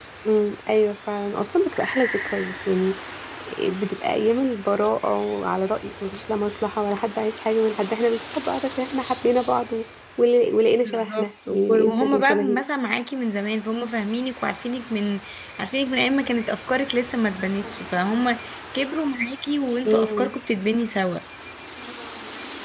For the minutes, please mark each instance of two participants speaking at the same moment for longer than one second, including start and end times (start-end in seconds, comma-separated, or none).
10.8-12.6